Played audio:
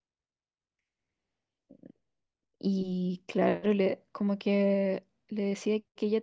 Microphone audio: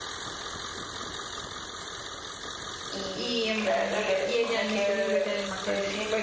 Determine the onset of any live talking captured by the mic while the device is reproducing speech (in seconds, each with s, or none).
3.1 s